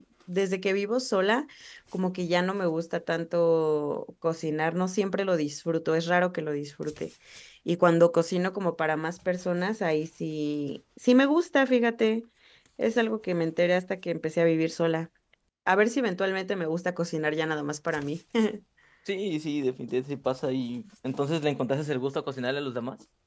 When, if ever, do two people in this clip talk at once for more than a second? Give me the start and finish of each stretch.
none

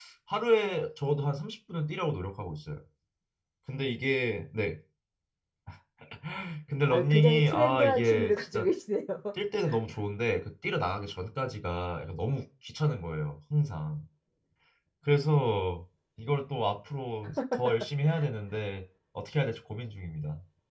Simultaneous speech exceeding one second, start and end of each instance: 6.9-8.7

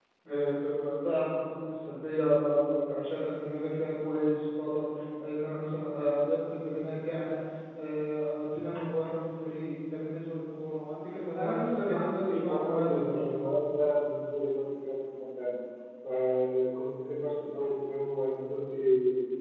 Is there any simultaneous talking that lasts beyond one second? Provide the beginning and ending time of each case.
11.3-13.3

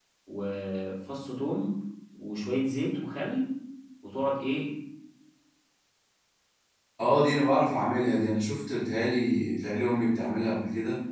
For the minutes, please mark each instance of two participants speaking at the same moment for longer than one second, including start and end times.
none

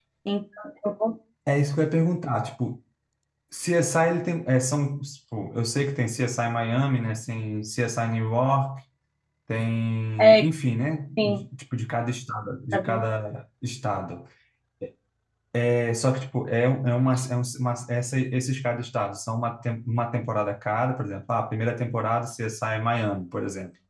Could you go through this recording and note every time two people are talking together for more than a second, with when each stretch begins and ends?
none

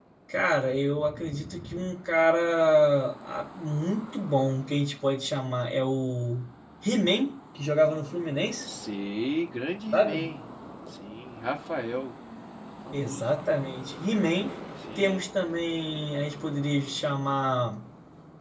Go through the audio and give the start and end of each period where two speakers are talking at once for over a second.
none

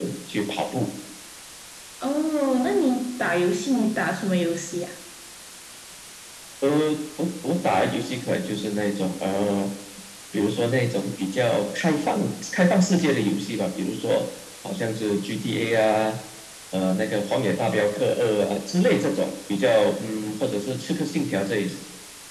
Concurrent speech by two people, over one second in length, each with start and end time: none

